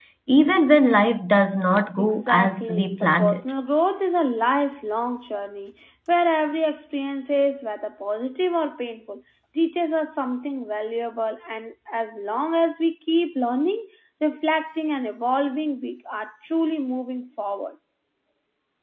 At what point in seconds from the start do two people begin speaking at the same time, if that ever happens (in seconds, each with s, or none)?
2.0 s